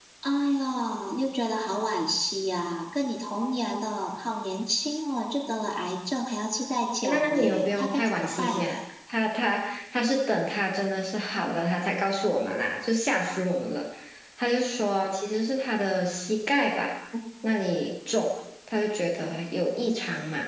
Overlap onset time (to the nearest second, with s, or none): 7 s